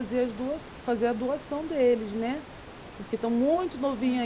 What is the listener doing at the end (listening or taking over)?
listening